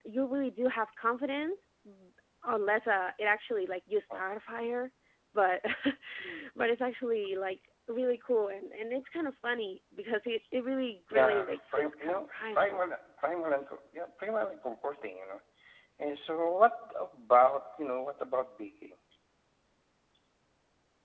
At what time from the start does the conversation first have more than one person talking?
11 s

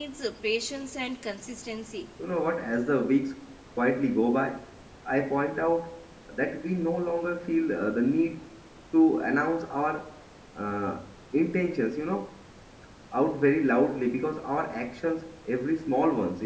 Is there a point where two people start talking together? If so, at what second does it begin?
none

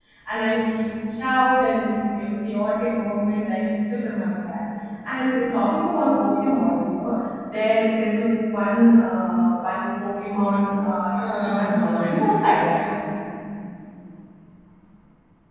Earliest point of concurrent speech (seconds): 11 s

